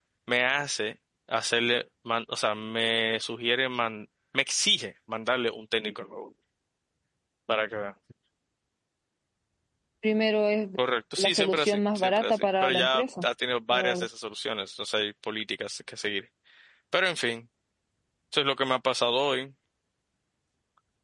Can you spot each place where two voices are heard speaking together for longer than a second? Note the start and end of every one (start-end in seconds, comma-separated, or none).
11.2-13.3